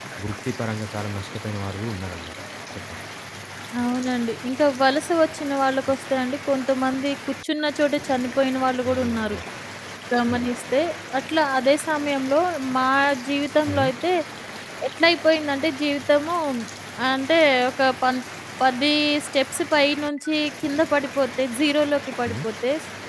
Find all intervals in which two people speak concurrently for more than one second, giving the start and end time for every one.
none

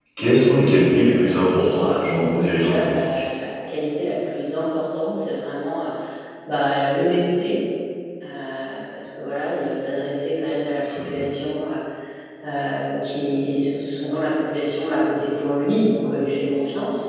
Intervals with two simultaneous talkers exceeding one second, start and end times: 1.2-3.2

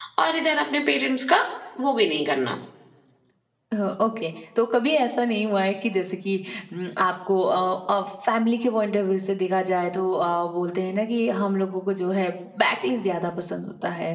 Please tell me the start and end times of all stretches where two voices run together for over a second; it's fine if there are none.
none

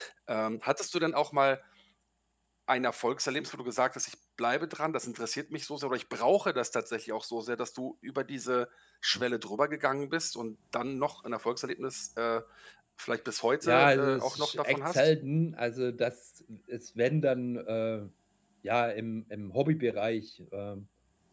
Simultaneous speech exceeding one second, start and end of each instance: 13.6-15.1

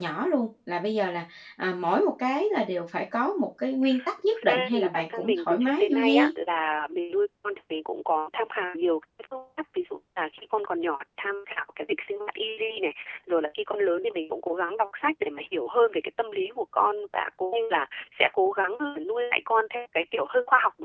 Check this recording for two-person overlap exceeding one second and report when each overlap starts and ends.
4.3-6.3

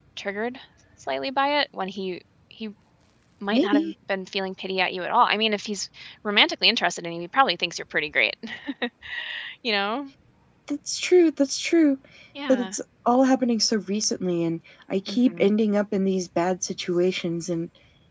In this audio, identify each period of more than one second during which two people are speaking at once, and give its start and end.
none

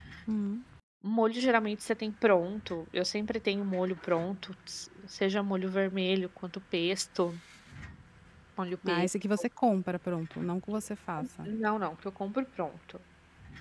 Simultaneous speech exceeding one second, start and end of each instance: none

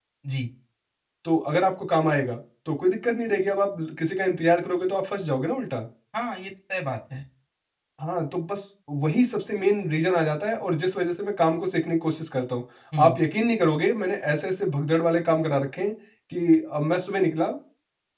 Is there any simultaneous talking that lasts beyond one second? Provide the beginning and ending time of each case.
none

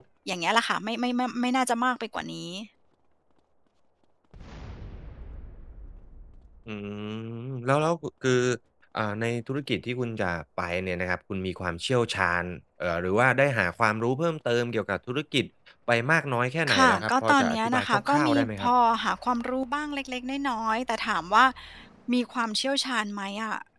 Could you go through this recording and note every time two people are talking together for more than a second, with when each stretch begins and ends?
16.7-18.7

